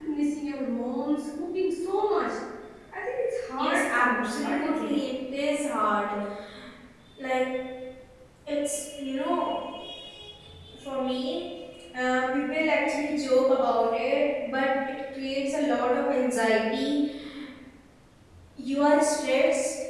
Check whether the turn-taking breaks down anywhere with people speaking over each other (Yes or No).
Yes